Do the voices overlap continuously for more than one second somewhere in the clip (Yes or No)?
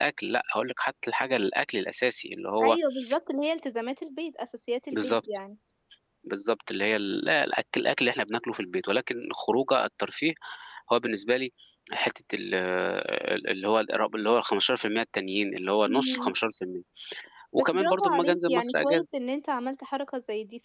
Yes